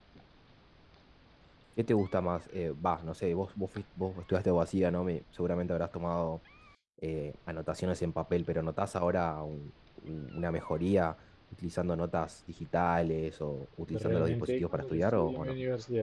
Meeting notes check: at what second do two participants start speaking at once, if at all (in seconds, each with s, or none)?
13.9 s